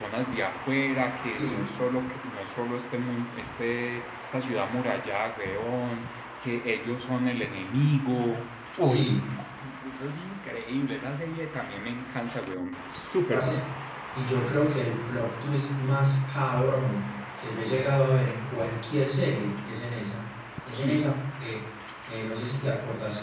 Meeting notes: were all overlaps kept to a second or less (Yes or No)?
Yes